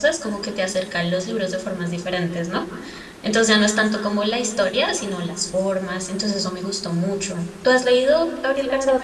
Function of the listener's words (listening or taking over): taking over